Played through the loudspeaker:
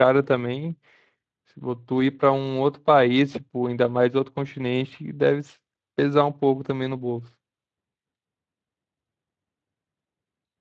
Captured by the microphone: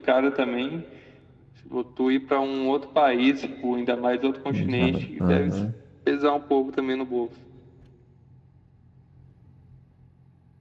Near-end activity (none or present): present